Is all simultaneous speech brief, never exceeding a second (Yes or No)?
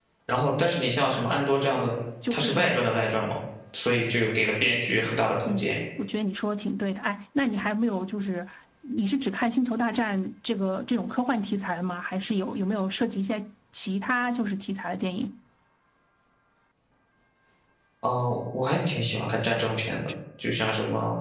Yes